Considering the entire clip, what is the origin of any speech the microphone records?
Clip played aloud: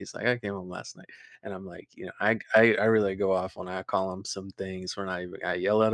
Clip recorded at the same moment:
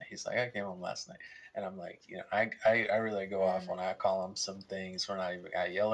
both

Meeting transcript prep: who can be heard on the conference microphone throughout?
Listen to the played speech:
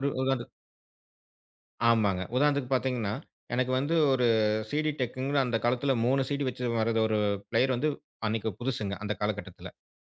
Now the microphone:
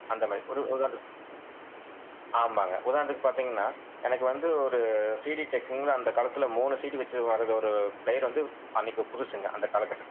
echo only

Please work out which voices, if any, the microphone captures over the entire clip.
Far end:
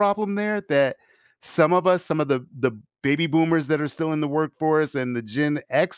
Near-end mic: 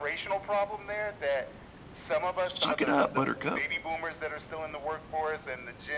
both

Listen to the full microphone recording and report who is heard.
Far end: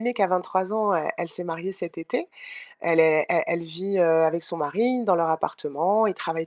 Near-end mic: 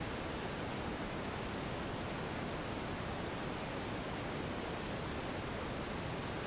neither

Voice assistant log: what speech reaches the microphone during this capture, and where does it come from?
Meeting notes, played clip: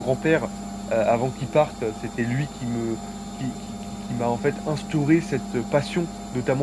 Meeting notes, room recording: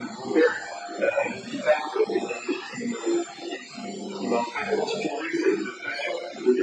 echo only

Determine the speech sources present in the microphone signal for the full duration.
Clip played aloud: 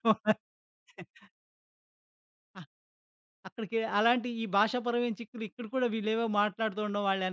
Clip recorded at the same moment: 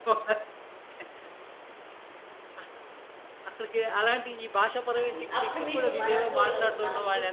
both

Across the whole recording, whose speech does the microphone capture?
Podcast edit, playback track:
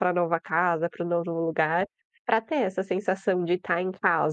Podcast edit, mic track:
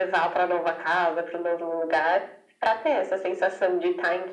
echo only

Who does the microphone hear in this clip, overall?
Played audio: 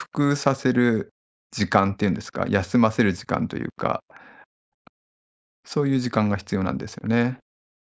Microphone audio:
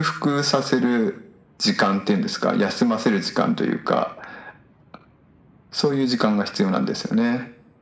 echo only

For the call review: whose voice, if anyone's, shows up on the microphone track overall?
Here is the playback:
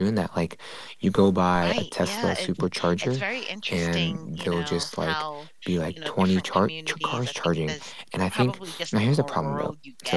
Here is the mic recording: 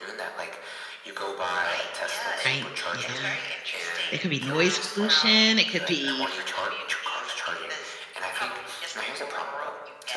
both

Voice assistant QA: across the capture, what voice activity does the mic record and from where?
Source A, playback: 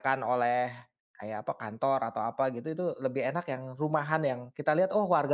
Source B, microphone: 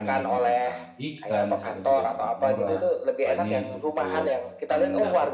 both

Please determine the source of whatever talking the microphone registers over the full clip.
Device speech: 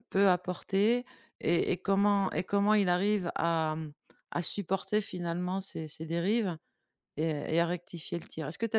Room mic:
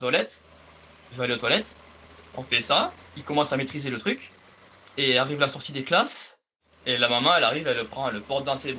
user only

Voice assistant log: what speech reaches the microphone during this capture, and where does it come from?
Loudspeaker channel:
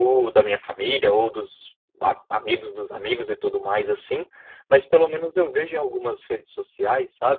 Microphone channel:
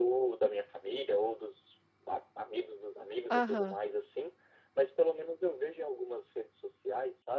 both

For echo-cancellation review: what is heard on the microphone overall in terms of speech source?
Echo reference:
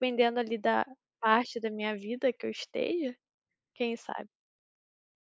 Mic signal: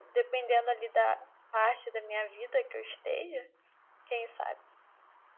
echo only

